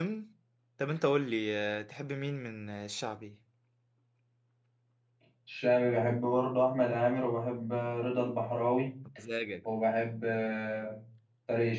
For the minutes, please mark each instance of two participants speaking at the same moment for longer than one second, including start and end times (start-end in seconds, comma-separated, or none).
none